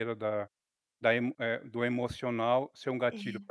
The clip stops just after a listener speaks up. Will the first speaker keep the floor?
Yes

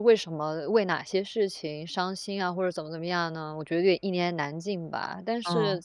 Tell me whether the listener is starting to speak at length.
No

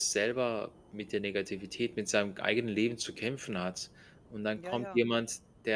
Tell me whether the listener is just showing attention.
Yes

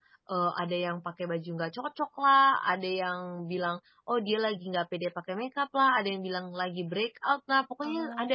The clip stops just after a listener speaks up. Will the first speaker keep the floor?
Yes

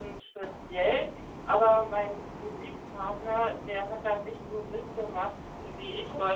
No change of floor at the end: Yes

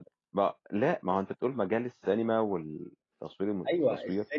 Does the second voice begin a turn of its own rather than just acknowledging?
Yes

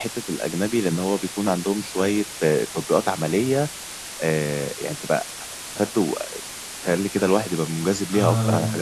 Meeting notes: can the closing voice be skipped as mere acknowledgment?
No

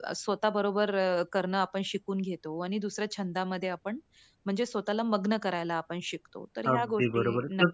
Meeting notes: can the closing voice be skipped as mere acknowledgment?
No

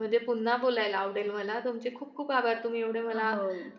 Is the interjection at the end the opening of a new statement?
No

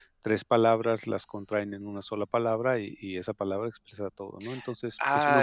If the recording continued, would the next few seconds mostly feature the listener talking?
Yes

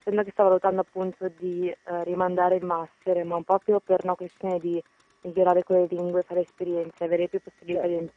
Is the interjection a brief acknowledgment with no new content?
No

